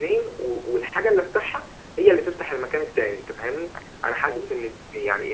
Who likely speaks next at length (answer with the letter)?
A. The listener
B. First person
B